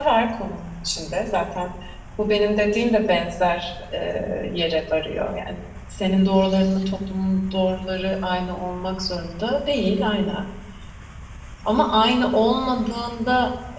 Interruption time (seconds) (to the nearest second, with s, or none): none